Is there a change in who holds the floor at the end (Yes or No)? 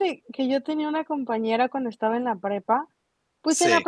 No